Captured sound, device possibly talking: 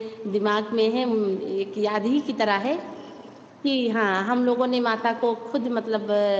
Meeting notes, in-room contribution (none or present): none